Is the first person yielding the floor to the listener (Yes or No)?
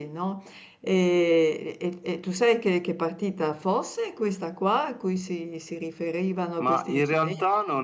Yes